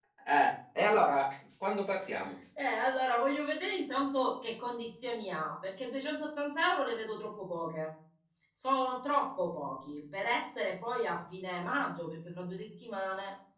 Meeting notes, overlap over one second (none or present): none